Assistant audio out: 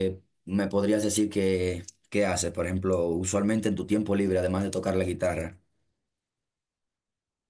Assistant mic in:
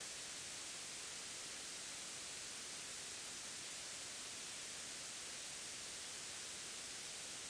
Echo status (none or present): none